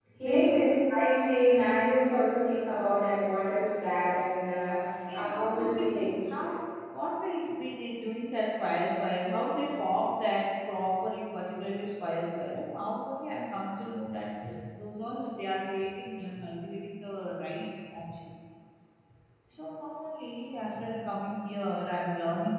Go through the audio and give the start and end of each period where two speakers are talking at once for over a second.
5.1-6.5

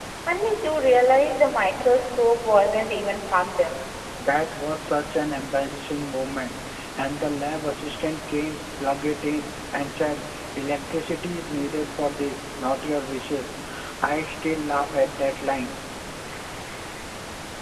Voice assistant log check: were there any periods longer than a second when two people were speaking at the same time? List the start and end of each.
none

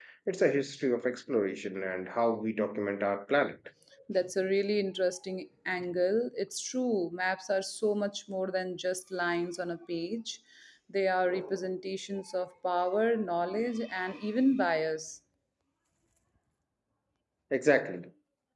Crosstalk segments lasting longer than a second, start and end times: none

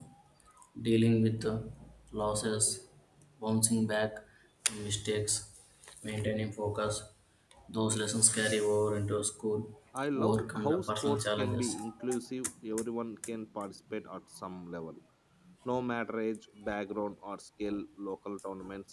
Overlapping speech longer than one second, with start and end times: 10.2-11.7

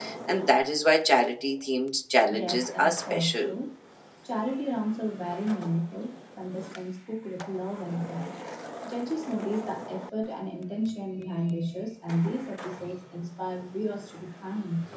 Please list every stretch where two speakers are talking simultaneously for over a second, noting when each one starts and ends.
2.3-3.5

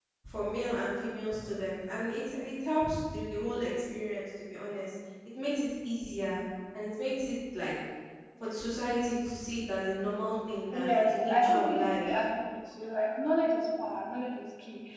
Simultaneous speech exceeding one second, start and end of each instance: 10.7-12.2

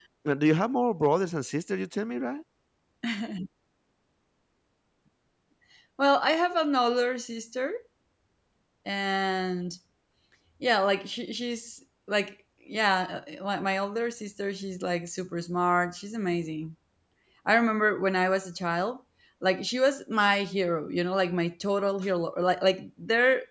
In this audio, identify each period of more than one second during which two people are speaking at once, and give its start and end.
none

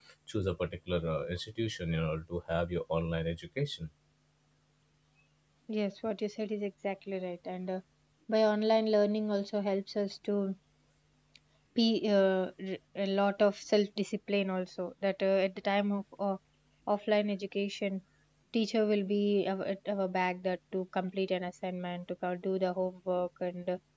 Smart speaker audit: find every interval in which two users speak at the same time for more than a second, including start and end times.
none

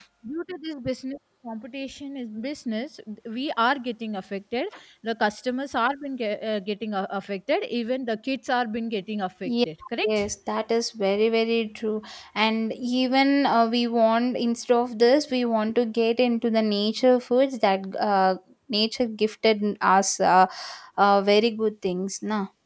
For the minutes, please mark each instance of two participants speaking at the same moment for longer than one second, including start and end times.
none

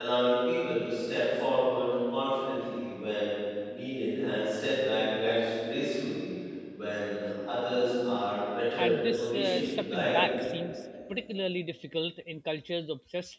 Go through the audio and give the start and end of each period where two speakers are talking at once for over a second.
8.8-10.2

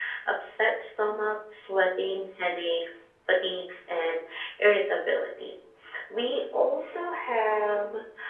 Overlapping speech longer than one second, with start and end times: none

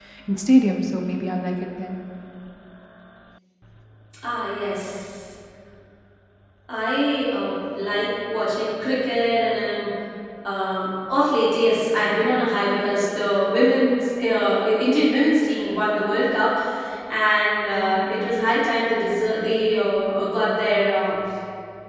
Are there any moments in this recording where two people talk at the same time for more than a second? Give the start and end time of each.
none

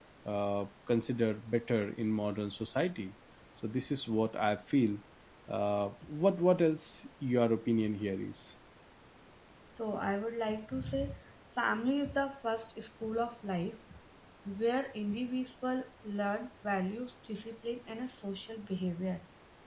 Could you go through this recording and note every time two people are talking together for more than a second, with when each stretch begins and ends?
none

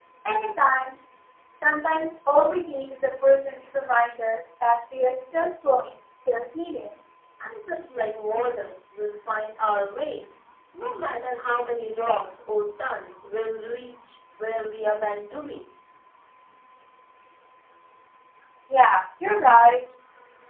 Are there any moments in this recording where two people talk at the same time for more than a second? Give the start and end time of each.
none

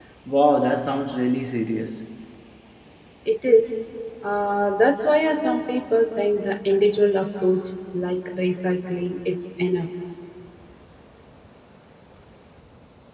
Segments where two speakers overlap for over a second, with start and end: none

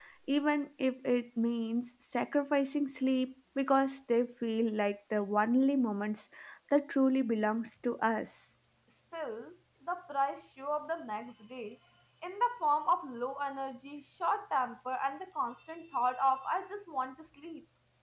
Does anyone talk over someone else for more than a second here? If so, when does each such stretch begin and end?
none

